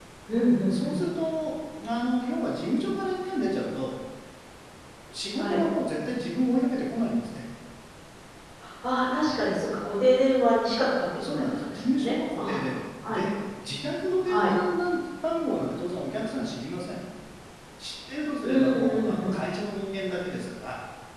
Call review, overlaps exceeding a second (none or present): present